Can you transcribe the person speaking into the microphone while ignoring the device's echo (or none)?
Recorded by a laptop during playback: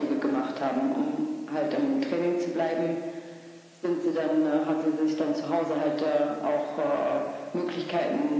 none